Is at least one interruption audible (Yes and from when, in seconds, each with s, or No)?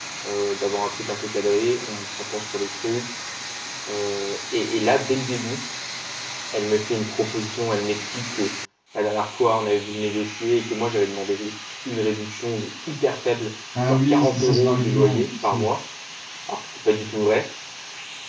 Yes, from 13.8 s